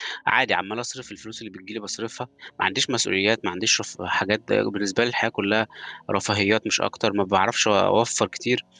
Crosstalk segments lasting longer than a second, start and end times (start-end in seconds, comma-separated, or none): none